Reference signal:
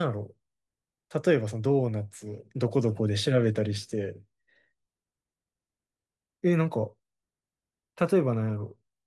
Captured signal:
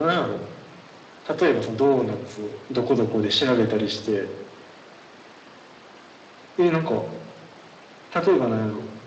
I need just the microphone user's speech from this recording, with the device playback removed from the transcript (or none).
none